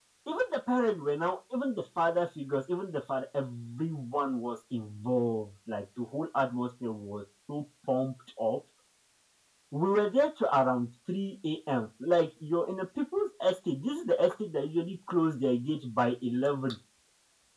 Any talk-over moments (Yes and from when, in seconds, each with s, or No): No